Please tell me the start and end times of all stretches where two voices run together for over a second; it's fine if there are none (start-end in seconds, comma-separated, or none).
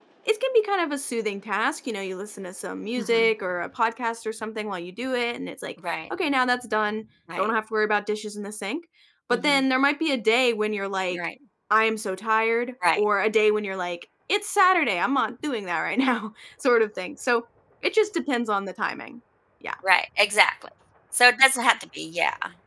none